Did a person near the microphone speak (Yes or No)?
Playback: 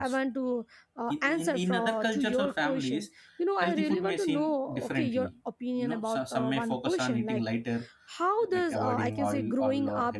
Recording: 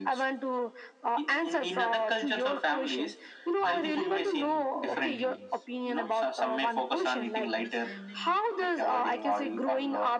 Yes